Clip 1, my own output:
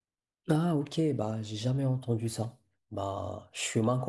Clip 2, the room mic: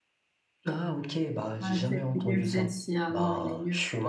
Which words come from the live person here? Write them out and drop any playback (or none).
Ah, c'est nul celle-ci. Ah non, elle est nulle.